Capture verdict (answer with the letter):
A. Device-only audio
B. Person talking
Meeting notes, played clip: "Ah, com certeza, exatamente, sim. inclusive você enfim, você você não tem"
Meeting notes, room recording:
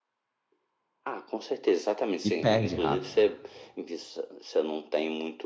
B